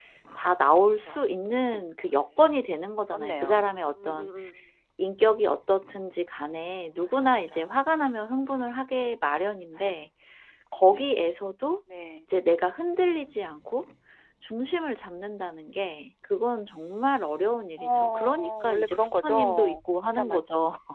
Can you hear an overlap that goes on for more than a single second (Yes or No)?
Yes